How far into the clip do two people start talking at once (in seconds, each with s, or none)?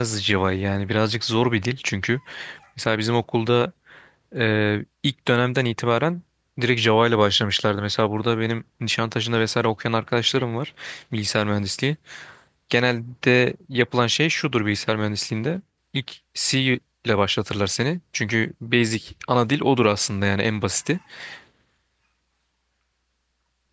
none